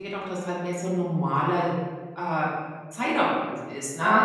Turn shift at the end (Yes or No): No